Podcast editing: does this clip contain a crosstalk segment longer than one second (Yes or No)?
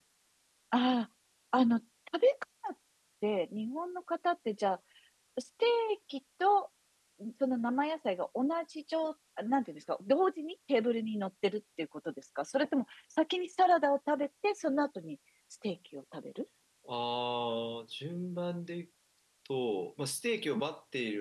No